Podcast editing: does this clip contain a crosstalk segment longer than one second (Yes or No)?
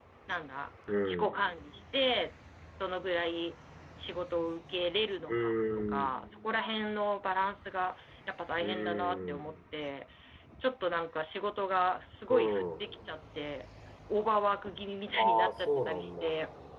Yes